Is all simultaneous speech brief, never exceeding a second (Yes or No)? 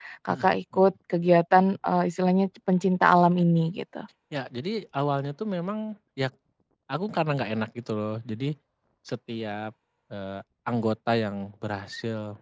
Yes